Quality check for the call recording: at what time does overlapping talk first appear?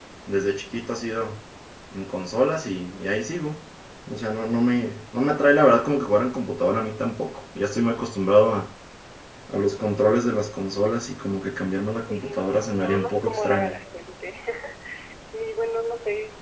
12.1 s

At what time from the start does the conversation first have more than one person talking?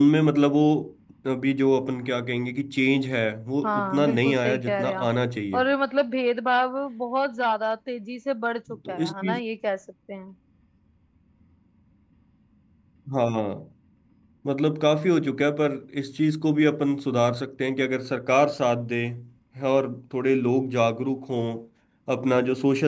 3.6 s

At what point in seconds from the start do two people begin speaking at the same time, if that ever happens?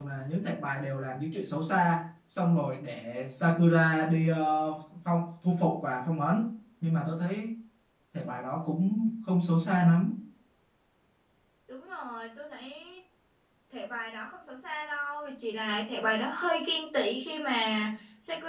none

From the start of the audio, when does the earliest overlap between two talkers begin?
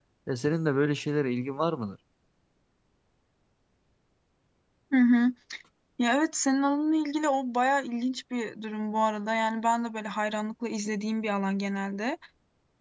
none

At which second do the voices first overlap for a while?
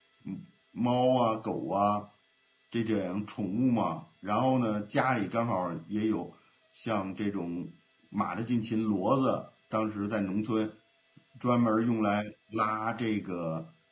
none

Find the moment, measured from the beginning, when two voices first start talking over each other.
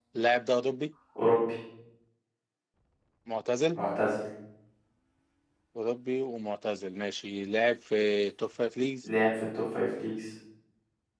none

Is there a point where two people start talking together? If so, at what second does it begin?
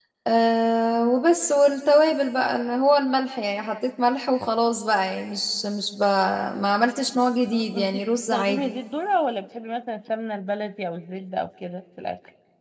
7.5 s

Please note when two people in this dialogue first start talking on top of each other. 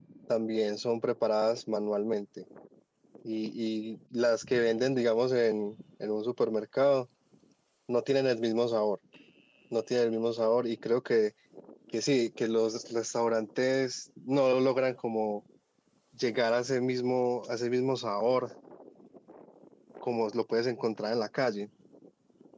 none

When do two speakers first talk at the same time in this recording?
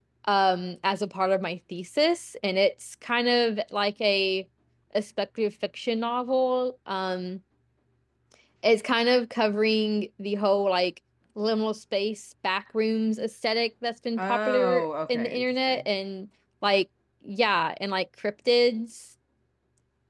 14.2 s

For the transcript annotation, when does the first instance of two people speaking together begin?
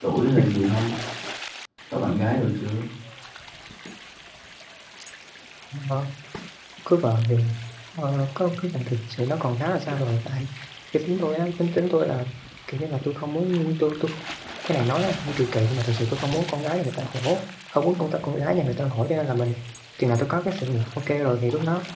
none

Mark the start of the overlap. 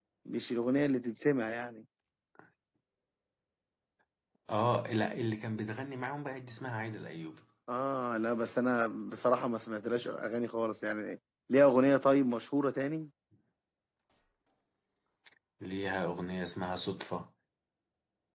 none

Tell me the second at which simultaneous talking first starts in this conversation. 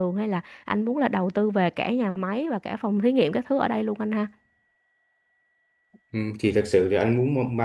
none

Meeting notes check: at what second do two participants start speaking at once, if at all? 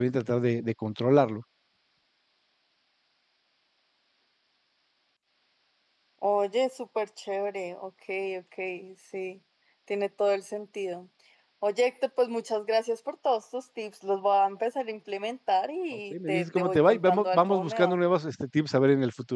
16.1 s

